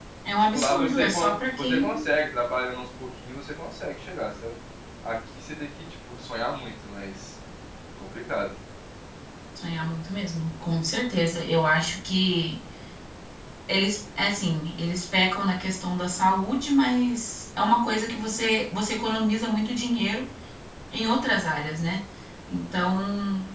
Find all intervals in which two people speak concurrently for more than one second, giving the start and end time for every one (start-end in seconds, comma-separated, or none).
0.5-2.1